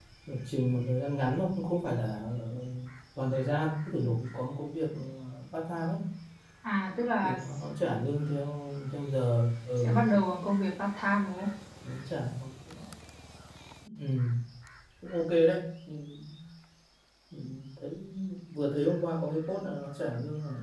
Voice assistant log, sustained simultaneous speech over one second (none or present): none